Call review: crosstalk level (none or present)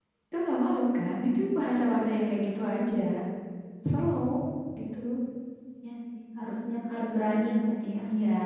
none